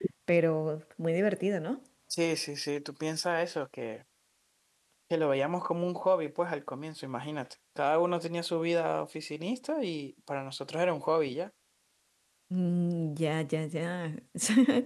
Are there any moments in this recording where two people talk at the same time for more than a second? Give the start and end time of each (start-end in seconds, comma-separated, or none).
none